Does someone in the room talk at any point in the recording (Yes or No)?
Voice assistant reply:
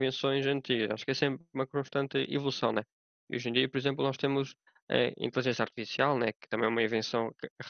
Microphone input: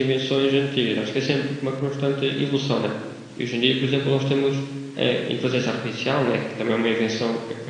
No